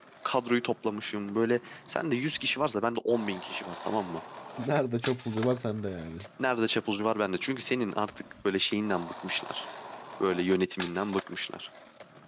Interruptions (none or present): none